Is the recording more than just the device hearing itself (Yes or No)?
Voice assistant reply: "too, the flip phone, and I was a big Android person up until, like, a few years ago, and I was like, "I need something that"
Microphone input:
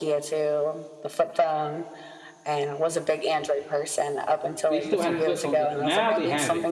Yes